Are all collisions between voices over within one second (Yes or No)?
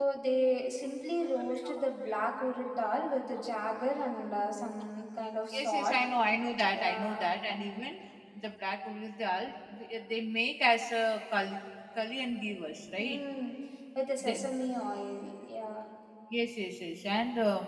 Yes